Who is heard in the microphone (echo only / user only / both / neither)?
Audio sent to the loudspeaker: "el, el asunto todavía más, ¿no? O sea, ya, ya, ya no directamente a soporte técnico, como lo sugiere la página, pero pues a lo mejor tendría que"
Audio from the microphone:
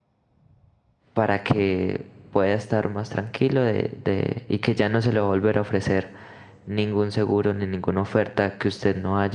user only